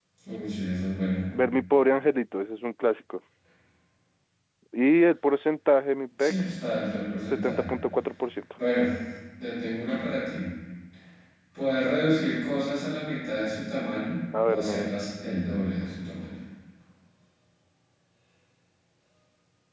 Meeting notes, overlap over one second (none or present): present